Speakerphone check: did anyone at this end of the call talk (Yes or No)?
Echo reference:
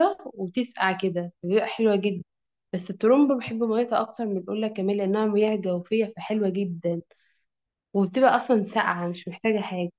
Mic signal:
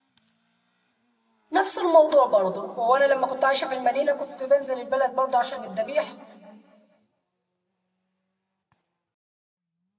Yes